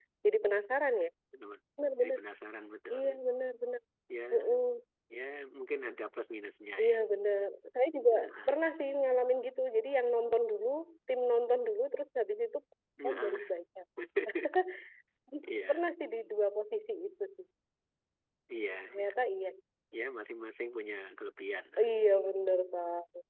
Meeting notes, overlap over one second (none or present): none